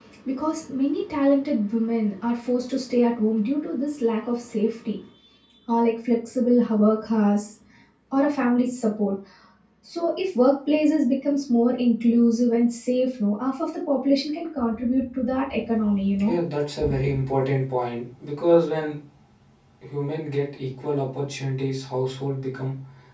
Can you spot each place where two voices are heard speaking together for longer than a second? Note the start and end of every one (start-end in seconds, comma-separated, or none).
none